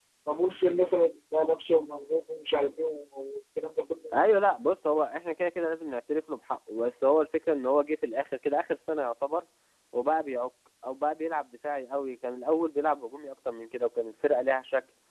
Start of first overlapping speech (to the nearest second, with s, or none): none